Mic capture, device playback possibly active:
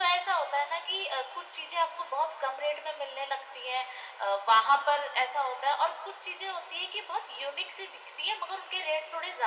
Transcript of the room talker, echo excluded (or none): none